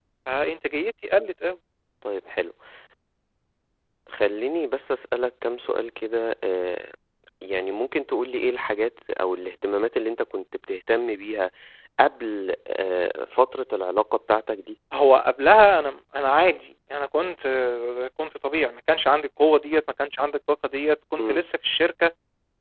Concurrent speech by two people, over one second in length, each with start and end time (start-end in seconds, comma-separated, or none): none